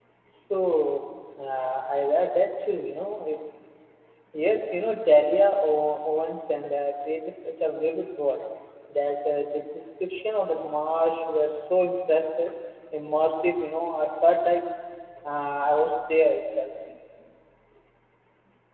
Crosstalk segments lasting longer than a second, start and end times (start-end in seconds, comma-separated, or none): none